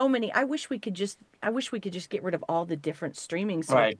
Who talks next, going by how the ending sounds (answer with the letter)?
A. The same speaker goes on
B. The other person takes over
B